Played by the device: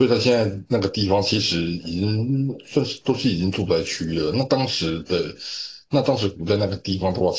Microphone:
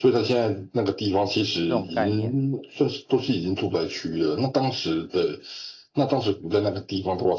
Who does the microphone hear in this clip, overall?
both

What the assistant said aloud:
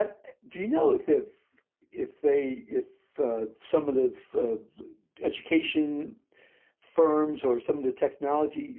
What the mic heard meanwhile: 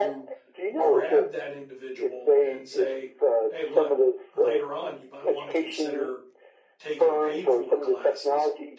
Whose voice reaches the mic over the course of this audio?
both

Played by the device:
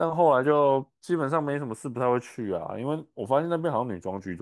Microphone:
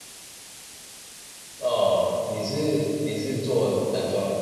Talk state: user only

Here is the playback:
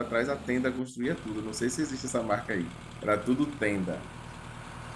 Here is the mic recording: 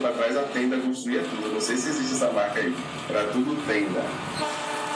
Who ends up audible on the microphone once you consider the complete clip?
echo only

